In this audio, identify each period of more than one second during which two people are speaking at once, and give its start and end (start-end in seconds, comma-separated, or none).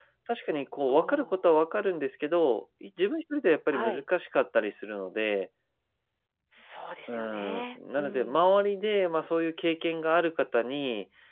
7.1-8.5